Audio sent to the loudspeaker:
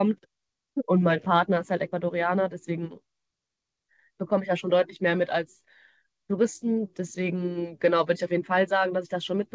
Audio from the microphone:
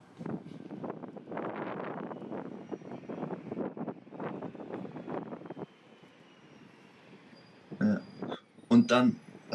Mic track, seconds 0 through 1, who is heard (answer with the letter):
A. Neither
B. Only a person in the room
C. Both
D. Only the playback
A